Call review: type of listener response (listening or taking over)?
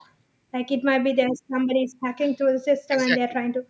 taking over